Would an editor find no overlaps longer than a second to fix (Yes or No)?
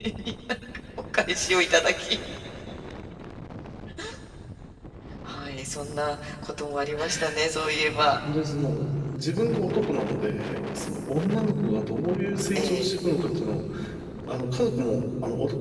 Yes